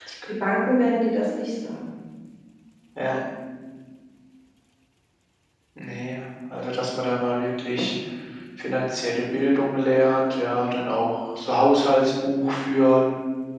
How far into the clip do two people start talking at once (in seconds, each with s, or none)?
none